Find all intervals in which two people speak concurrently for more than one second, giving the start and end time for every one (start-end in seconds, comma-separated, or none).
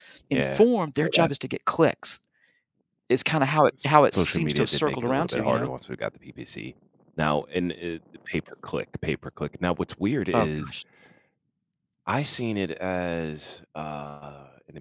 3.8-5.7